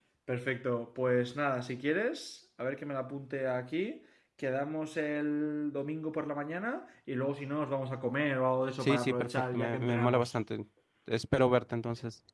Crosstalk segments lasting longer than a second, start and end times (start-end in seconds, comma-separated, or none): 8.8-10.3